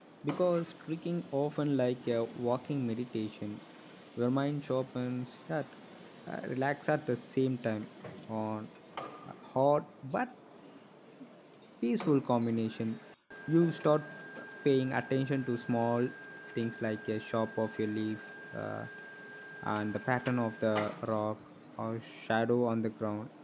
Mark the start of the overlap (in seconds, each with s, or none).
none